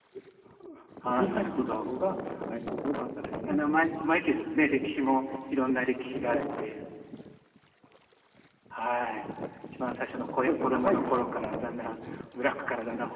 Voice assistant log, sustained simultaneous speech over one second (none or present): present